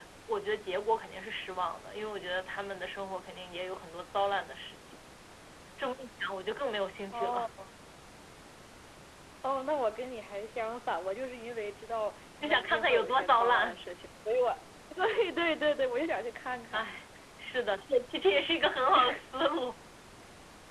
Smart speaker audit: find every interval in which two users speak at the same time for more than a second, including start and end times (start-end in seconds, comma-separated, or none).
12.4-13.8